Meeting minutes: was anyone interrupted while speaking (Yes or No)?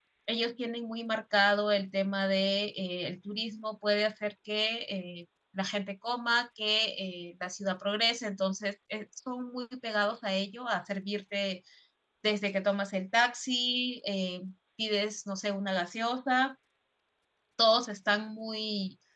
No